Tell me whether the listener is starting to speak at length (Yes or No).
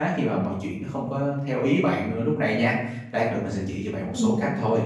No